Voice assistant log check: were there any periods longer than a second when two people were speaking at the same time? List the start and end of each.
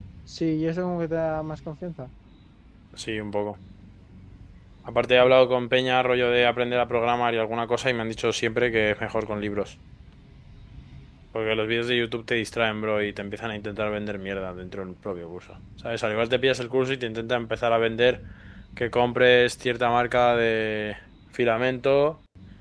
none

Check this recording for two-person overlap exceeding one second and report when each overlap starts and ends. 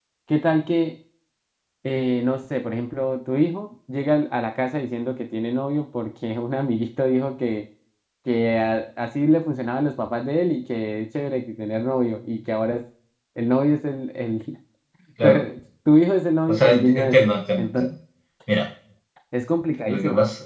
16.5-17.9

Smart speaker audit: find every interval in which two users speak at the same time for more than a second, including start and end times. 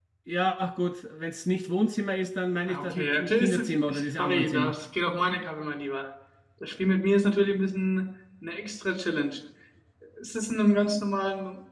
2.7-4.8

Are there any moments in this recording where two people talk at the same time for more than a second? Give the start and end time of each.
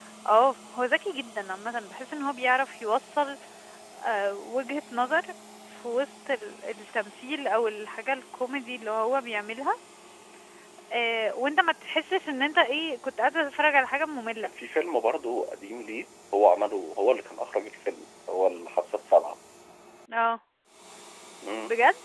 none

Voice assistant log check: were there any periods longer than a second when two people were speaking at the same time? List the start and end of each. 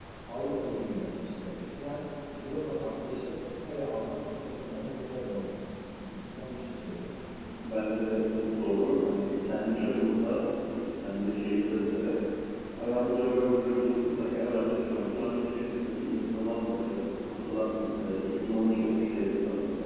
none

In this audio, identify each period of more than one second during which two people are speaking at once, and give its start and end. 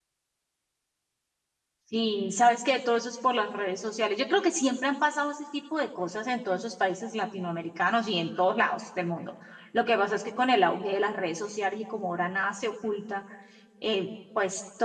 none

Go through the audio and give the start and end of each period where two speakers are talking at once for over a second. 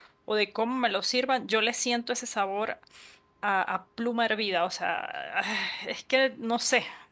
none

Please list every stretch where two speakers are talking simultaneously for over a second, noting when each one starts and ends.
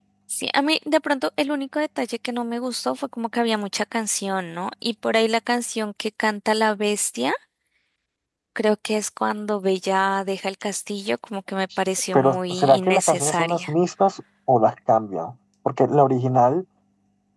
12.1-13.7

